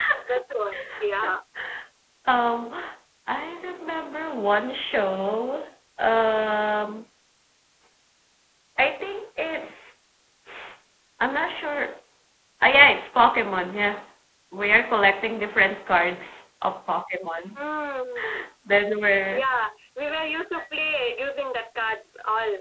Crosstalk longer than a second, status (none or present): none